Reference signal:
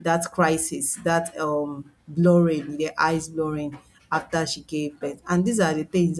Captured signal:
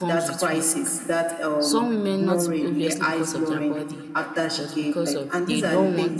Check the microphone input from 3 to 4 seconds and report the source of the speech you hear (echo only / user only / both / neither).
both